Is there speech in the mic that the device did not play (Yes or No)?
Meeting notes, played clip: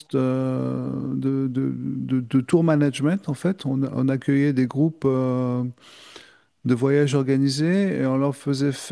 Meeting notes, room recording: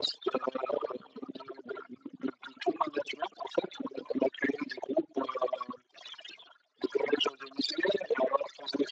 No